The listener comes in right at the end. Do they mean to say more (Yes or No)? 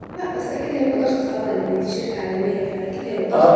Yes